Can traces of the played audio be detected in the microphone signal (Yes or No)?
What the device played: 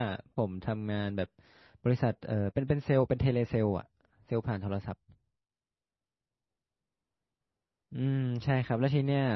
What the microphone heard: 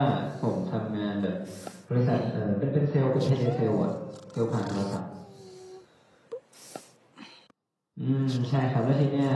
Yes